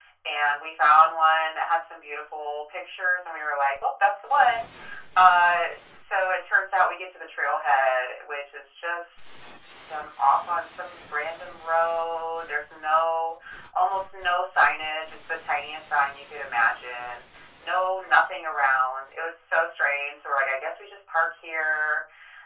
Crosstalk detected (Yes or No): No